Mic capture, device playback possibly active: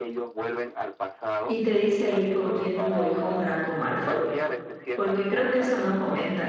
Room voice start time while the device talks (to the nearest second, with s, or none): 1 s